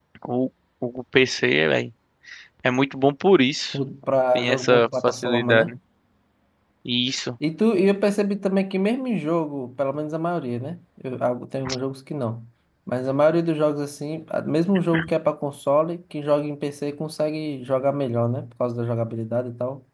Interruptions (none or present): present